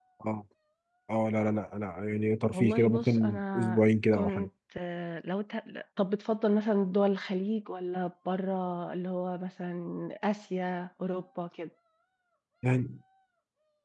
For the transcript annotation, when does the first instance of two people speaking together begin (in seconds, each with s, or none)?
2.5 s